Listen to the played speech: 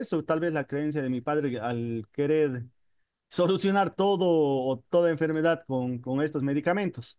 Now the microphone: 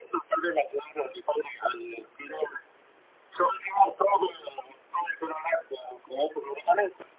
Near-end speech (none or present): none